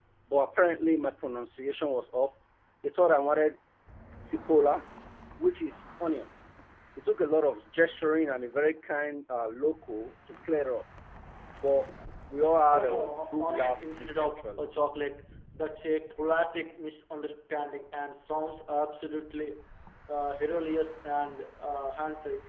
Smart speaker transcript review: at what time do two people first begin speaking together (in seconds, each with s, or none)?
12.7 s